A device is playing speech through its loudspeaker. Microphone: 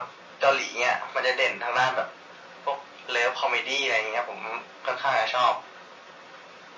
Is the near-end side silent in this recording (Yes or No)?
Yes